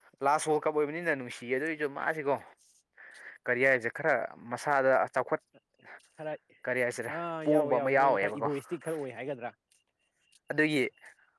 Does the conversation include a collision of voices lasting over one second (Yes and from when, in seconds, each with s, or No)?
Yes, from 7.2 s